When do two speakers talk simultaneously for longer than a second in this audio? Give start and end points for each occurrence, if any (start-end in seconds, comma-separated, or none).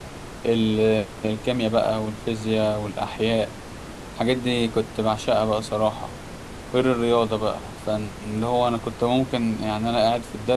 none